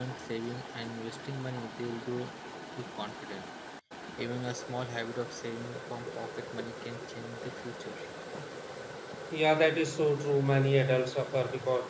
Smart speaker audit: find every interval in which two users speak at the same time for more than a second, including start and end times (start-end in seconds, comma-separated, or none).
none